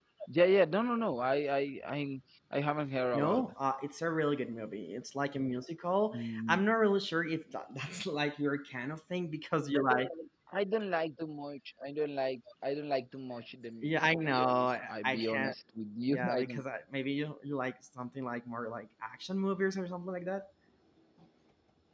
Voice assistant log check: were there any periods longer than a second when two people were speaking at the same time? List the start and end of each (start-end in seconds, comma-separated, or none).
13.8-15.5